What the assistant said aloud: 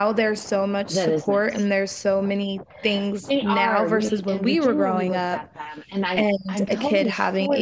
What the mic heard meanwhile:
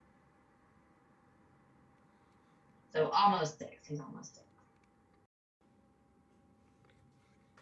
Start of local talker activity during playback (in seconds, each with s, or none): 2.9 s